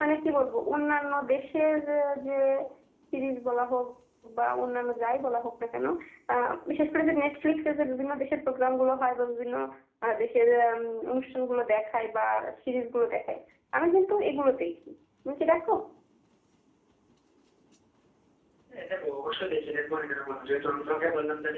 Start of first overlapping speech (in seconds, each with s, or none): none